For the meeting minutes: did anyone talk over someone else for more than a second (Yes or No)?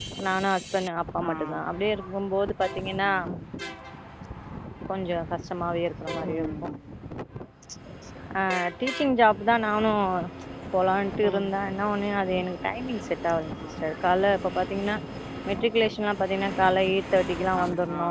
No